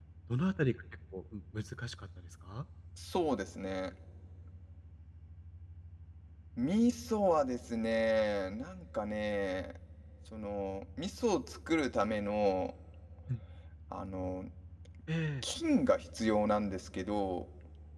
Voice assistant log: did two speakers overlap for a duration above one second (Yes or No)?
No